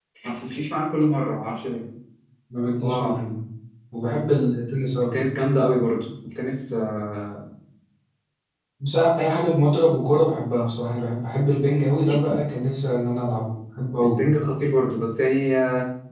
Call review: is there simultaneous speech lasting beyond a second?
No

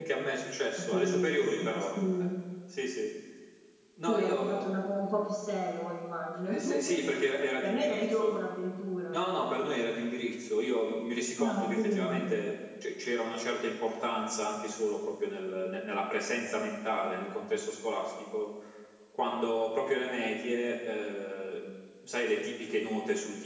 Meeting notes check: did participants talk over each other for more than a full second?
Yes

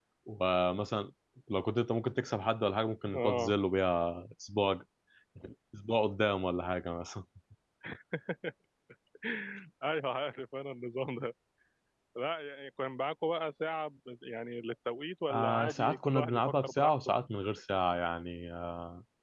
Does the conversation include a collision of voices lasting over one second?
Yes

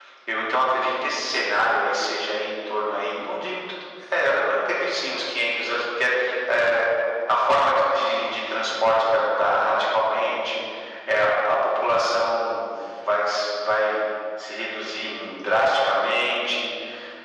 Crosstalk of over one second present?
No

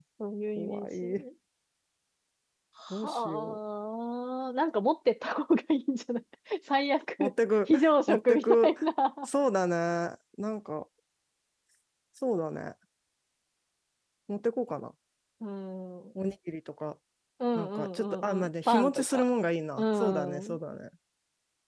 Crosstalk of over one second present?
Yes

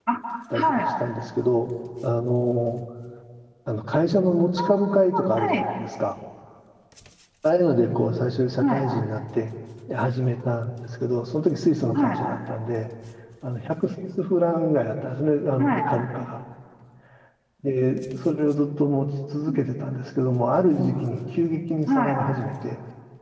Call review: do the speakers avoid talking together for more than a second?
Yes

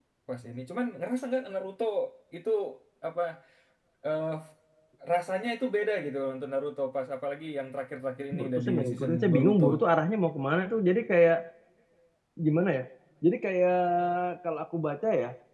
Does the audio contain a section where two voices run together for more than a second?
Yes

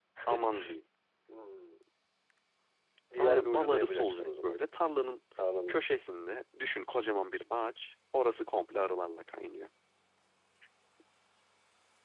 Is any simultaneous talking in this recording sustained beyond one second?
Yes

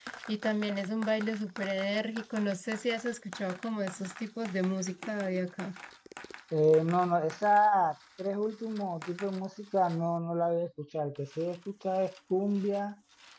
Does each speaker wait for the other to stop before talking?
Yes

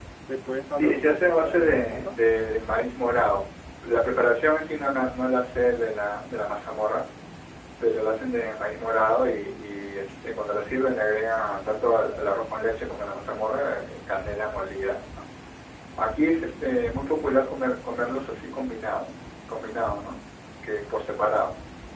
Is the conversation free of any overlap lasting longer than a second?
No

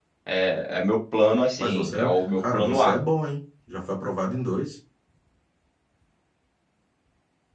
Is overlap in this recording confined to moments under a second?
No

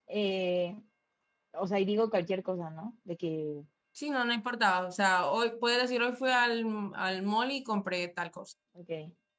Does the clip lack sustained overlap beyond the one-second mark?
Yes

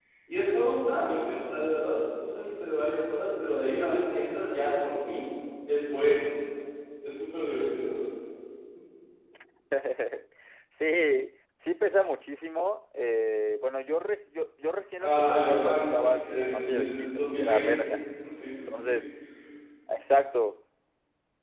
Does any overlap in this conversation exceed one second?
Yes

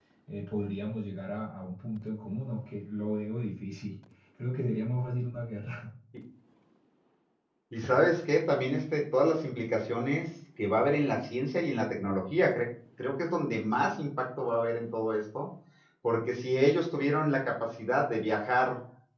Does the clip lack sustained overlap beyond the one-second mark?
Yes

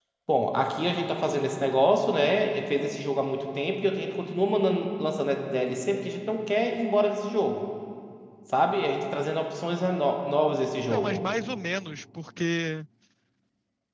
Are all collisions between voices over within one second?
Yes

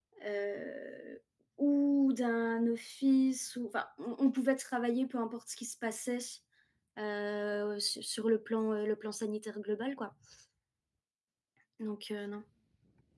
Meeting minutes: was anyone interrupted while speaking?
No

